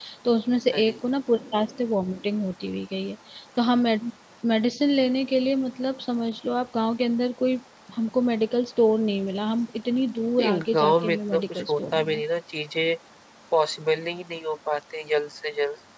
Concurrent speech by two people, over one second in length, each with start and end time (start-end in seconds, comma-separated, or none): 10.4-12.2